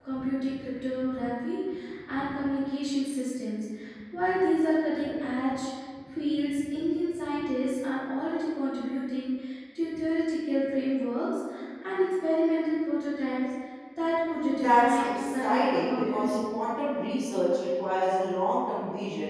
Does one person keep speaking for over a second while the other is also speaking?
Yes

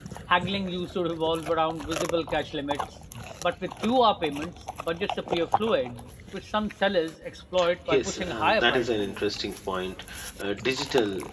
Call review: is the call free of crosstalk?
No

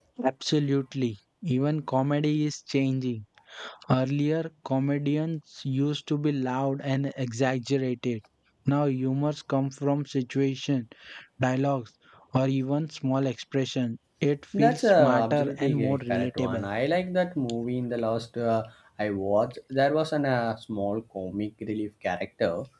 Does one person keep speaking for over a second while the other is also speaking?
Yes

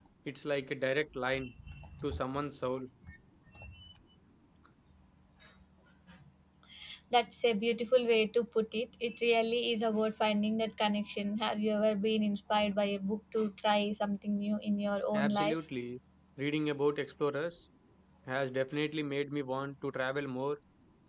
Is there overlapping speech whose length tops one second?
No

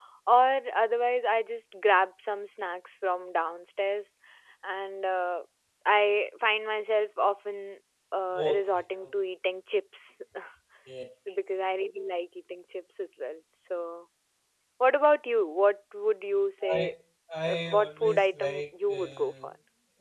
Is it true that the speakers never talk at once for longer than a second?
No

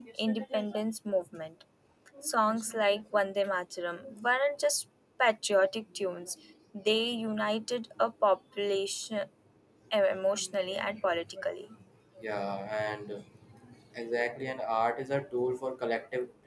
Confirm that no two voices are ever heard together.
Yes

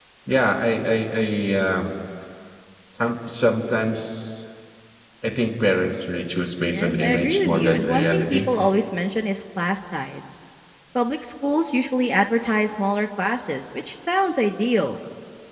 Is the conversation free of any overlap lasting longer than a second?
No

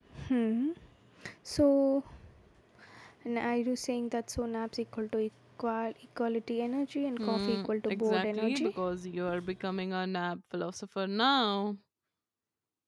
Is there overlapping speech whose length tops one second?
Yes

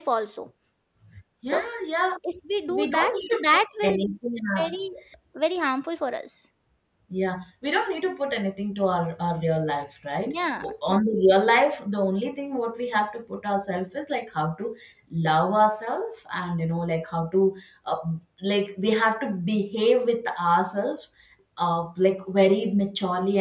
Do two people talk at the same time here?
Yes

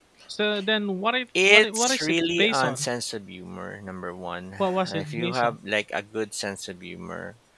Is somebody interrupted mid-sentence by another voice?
Yes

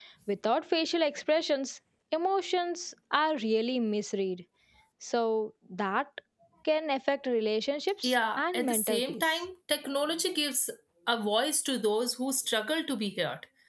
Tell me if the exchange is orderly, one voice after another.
No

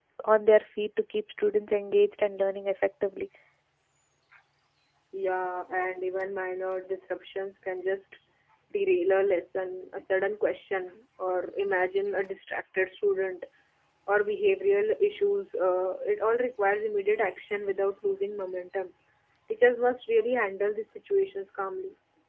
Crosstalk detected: No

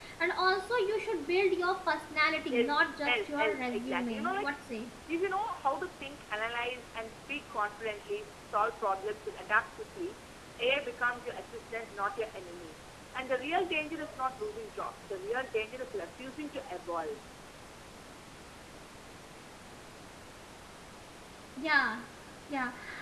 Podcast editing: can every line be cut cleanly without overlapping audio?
No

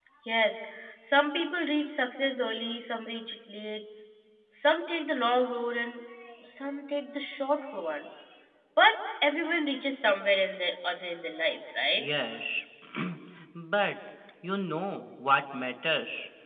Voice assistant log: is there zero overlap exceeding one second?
Yes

